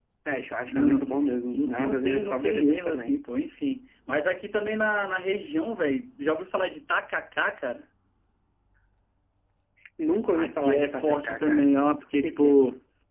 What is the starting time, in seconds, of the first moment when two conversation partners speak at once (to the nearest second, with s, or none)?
1 s